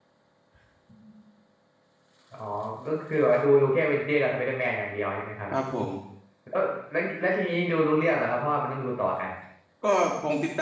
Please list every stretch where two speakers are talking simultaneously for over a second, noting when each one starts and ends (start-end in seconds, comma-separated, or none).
none